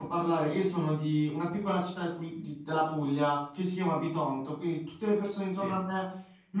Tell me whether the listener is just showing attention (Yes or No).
Yes